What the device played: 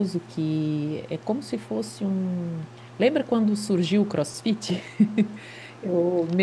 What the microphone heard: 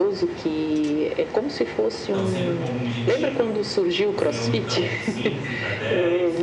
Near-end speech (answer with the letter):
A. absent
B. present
B